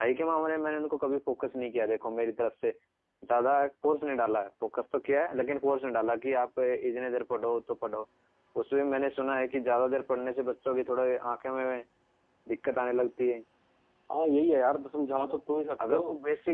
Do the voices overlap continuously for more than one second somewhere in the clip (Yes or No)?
No